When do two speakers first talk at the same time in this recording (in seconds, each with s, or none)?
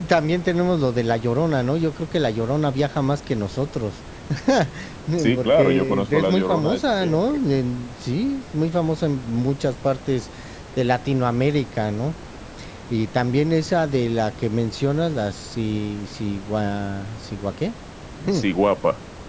5.2 s